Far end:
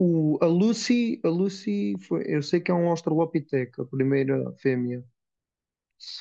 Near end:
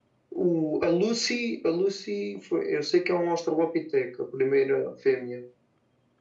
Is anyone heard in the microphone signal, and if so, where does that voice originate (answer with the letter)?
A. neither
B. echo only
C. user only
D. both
B